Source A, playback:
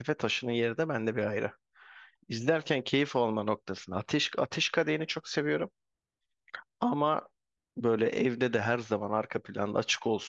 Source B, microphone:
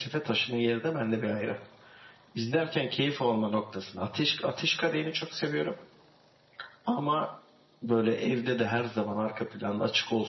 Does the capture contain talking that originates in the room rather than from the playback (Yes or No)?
No